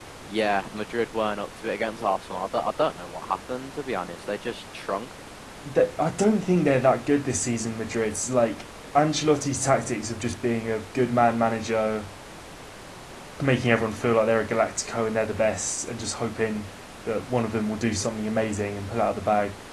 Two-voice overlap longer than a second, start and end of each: none

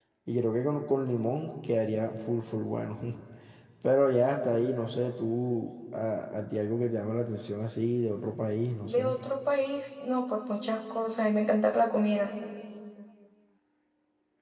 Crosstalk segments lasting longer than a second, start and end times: none

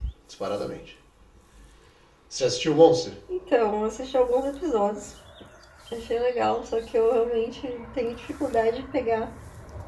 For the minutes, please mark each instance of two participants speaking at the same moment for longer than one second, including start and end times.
none

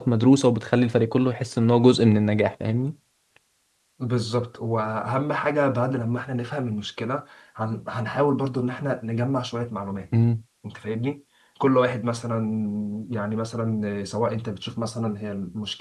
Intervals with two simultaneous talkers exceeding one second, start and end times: none

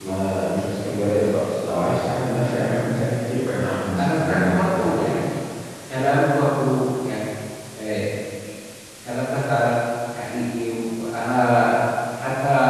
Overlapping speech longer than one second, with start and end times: 4.0-5.3

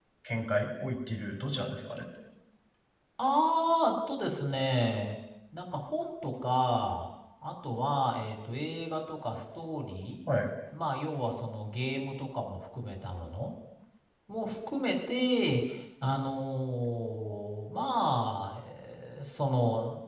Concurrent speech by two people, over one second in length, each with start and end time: none

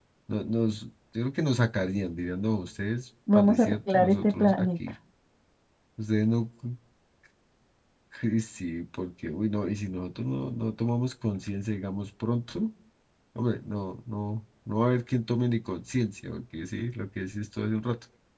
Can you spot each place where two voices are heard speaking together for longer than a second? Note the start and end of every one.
3.4-4.7

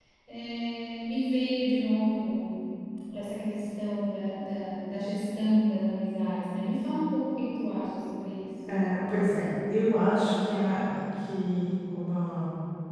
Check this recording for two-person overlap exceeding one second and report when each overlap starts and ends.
none

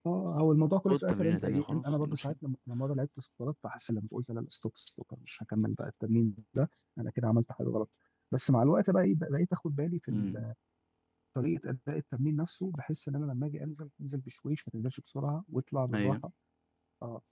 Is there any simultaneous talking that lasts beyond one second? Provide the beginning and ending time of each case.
0.9-2.3

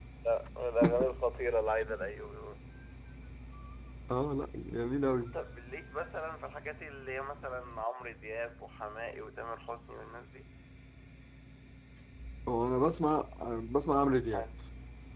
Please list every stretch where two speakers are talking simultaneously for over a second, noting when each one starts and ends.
none

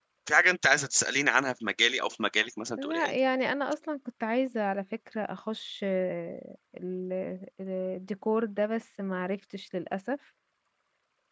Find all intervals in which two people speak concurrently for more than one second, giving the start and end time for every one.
none

